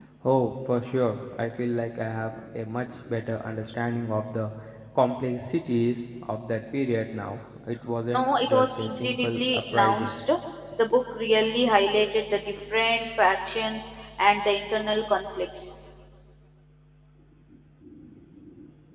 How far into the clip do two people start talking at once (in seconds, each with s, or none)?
8.1 s